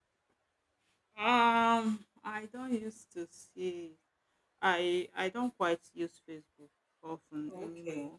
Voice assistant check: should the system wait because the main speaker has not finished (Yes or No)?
No